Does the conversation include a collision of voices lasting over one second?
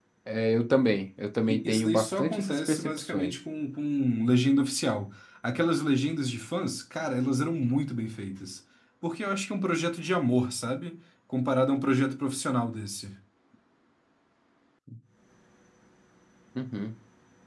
Yes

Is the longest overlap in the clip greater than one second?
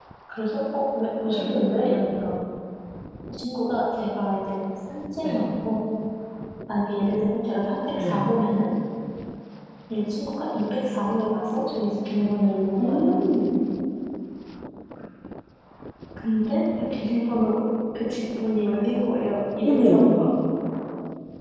No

